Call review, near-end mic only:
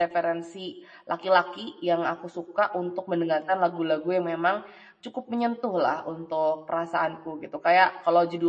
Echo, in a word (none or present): none